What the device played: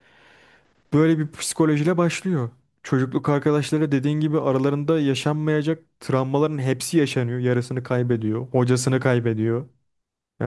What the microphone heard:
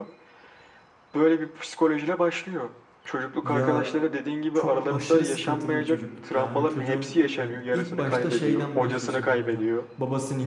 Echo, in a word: present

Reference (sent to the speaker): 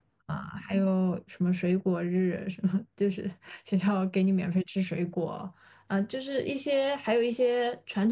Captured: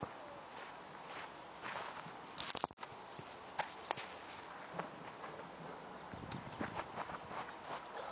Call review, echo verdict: none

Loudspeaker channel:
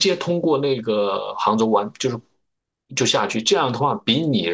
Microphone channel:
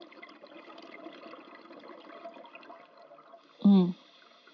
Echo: none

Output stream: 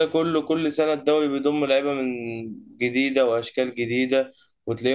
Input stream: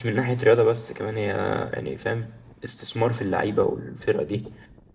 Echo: none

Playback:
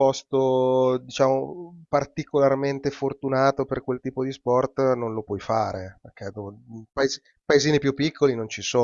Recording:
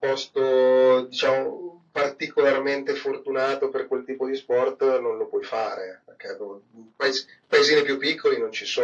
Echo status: present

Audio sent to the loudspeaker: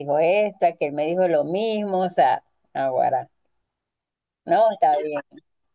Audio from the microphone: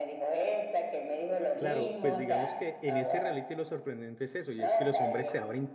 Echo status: present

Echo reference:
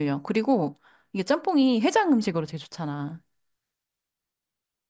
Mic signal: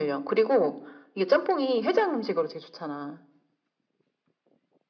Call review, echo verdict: present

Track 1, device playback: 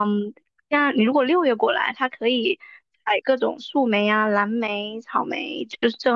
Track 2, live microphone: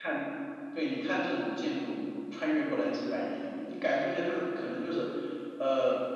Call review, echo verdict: none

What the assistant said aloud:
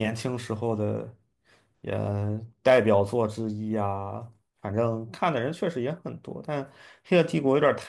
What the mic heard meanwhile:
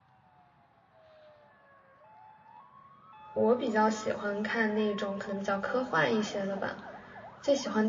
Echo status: none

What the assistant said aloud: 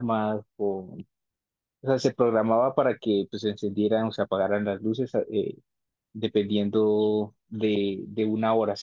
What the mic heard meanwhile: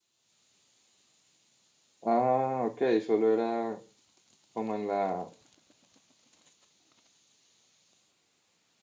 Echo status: none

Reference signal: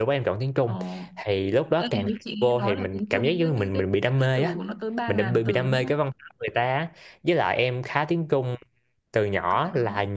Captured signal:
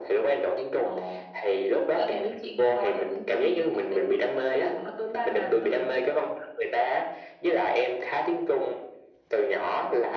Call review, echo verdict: present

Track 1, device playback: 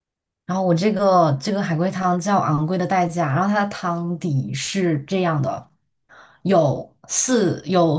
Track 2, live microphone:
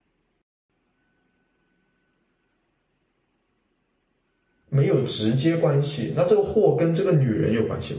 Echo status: none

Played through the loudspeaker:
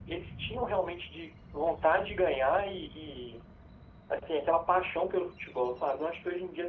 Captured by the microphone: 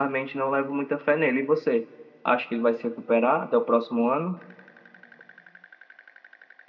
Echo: none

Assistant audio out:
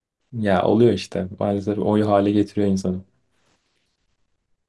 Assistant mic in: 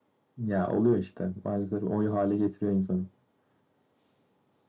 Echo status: present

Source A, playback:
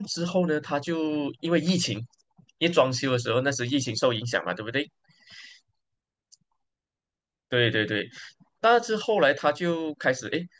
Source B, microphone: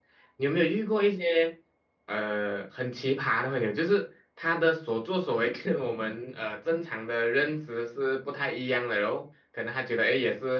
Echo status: none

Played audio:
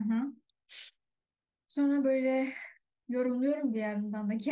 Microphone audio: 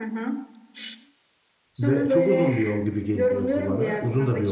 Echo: present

